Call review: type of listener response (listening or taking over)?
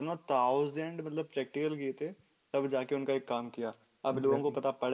listening